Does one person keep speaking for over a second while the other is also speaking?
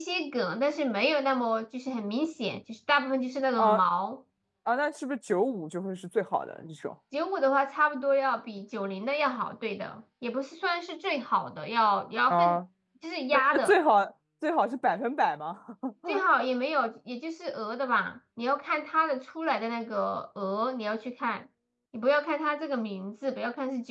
No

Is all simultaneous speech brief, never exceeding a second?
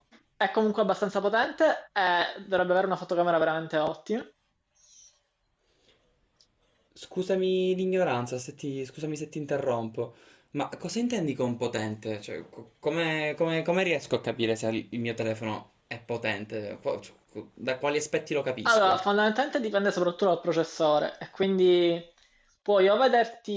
Yes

